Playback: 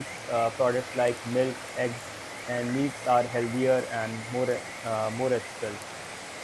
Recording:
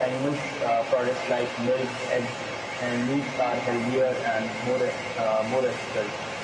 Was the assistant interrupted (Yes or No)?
No